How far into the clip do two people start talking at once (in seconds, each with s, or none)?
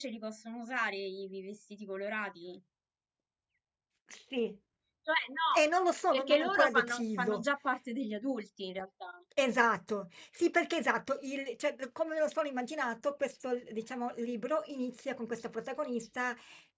6.1 s